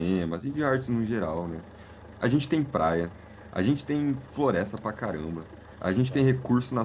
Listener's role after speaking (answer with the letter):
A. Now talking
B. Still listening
B